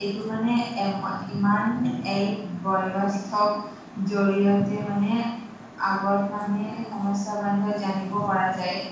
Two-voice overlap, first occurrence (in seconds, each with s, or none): none